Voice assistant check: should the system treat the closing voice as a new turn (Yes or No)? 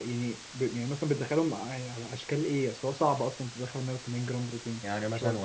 Yes